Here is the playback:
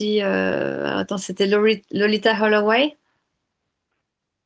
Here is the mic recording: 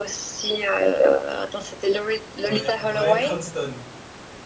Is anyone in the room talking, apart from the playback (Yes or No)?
Yes